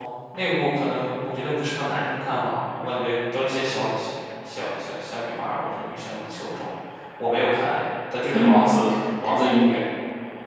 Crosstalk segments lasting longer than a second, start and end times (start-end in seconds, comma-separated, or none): 8.3-9.8